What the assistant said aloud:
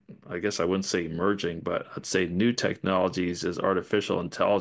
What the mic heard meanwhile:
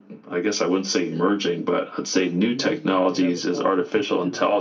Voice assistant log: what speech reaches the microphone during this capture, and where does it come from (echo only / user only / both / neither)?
both